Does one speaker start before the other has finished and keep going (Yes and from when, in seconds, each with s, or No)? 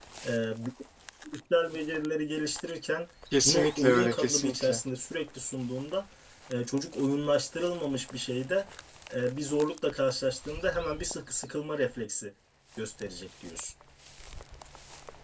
Yes, from 3.4 s